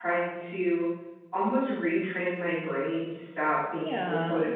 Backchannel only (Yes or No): Yes